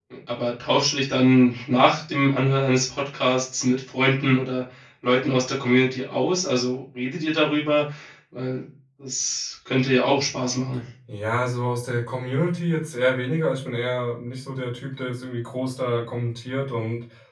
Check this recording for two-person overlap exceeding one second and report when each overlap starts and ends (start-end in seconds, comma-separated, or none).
none